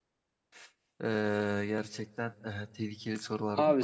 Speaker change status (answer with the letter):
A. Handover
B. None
A